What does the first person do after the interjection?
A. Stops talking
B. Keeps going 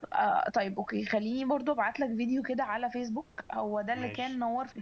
B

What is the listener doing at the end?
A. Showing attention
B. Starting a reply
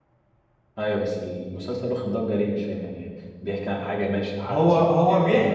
B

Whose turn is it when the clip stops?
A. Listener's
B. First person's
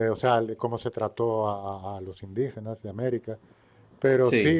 B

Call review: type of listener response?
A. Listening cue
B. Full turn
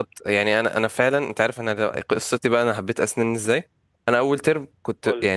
A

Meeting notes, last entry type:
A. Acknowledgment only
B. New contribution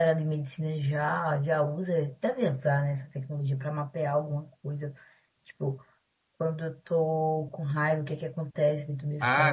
B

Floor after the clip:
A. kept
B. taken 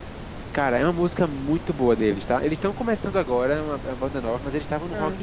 A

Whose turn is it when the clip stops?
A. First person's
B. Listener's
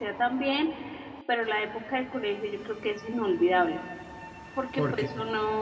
A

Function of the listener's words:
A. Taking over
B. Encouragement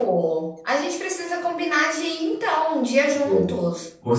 A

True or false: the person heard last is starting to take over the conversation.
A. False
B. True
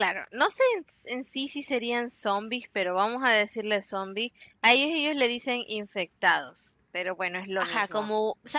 B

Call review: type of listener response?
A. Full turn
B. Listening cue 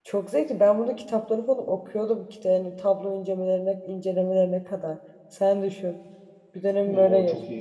A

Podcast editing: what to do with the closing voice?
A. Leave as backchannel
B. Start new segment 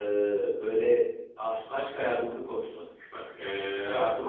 A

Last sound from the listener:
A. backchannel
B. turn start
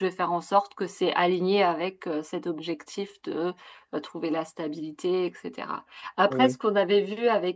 A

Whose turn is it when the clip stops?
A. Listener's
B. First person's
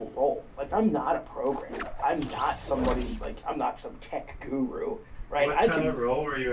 A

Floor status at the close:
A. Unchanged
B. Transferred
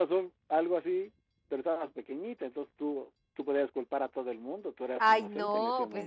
B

